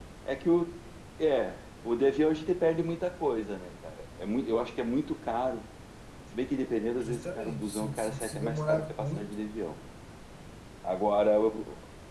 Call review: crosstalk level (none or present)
present